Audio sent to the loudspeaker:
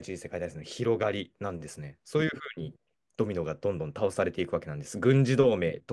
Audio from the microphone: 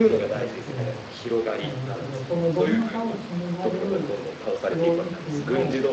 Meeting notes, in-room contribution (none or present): present